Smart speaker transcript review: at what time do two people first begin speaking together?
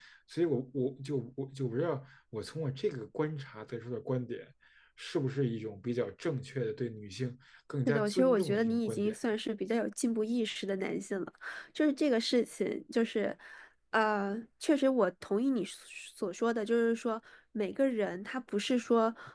7.9 s

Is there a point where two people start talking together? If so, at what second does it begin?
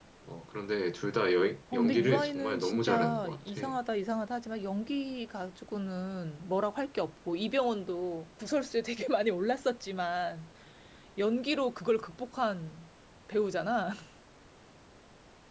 1.7 s

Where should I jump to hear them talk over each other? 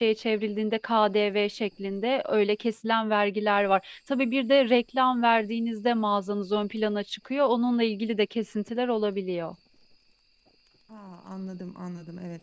none

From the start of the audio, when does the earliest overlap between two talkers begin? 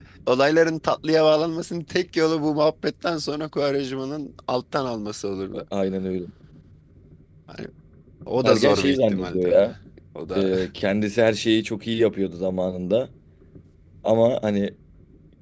8.4 s

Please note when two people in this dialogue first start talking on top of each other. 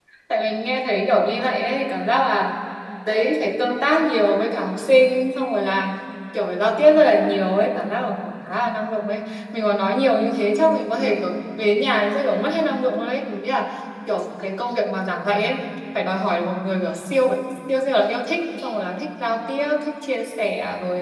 none

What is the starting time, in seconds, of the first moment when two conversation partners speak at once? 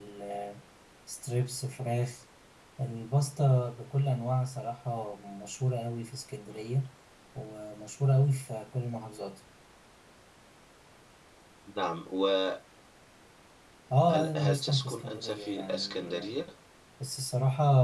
14.4 s

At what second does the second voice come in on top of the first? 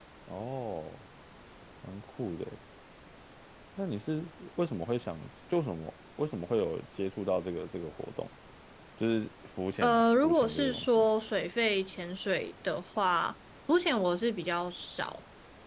9.8 s

